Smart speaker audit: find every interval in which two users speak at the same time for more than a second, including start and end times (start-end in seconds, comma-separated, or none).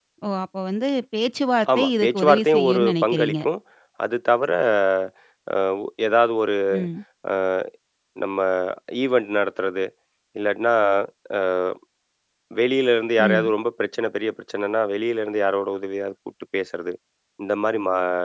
1.8-3.3